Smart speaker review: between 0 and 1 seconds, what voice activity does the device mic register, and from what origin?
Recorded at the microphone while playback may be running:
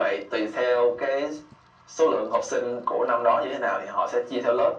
echo only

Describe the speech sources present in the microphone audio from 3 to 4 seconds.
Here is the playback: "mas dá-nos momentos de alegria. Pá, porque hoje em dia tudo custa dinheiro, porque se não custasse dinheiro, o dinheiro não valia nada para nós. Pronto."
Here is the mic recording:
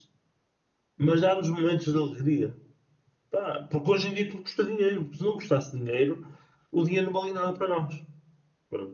echo only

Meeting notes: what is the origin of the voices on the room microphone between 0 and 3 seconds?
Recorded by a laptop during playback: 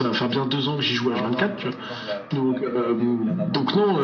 both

